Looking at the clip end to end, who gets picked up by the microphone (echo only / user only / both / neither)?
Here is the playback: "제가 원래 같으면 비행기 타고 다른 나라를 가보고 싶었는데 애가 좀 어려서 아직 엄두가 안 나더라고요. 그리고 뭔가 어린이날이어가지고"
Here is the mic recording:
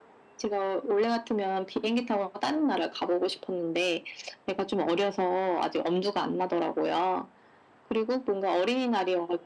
echo only